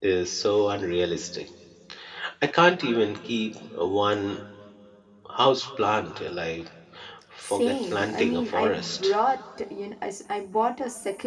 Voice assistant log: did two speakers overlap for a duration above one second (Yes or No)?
Yes